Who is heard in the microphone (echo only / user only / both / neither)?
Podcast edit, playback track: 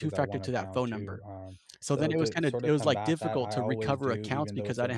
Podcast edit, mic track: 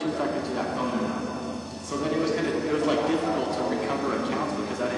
echo only